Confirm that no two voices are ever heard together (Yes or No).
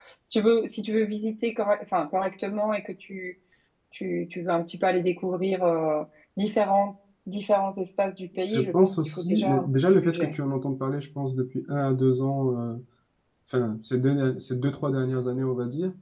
No